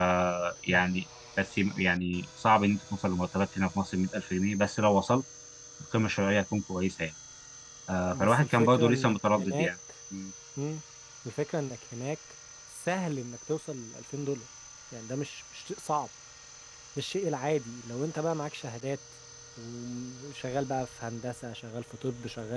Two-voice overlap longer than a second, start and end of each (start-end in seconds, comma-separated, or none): 8.1-9.7